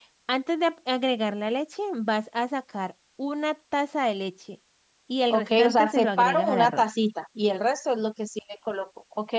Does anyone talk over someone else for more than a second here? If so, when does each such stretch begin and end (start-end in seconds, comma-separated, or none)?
5.3-6.8